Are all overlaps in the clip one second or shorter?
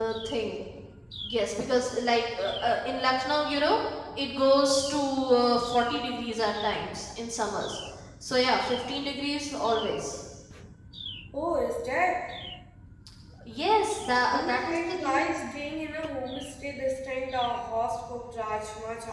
No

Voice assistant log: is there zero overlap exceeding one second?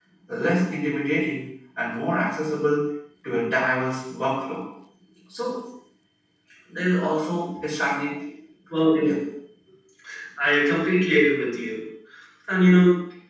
Yes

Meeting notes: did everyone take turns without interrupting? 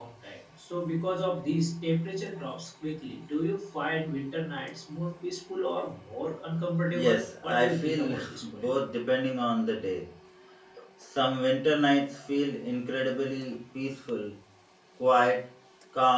No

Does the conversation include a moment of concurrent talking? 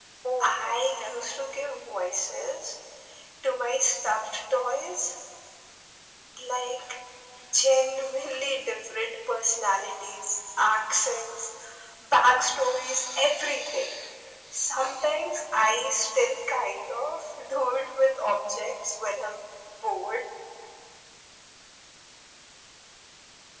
Yes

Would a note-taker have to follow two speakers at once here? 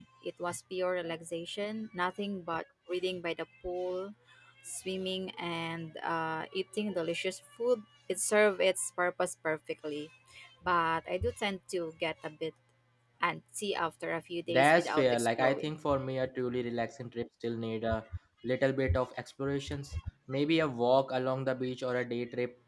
Yes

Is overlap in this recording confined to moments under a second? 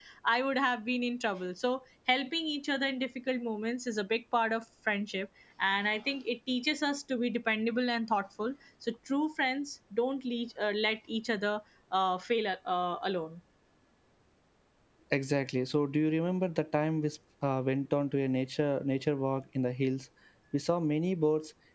Yes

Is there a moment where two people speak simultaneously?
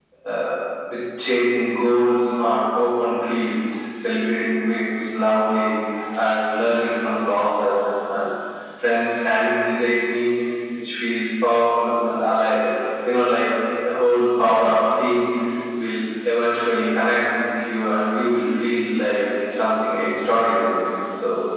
No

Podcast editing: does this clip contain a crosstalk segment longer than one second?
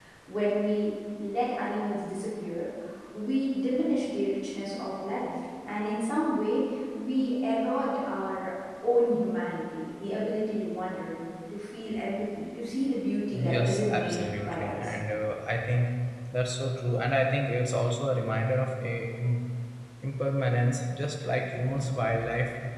Yes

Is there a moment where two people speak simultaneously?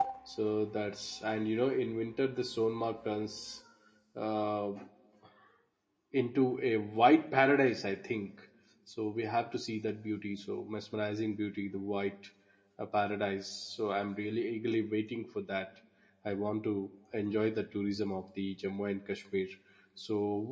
No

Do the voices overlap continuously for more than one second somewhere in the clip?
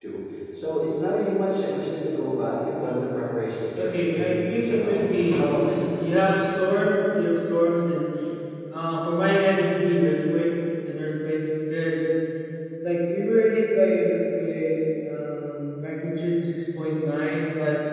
Yes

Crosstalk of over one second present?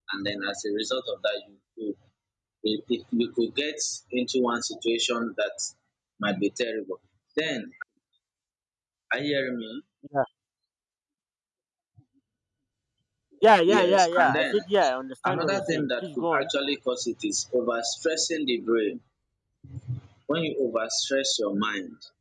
Yes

